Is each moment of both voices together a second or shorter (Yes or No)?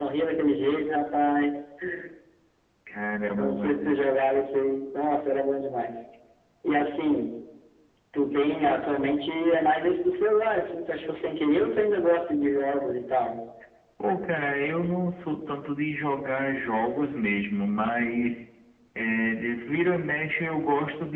Yes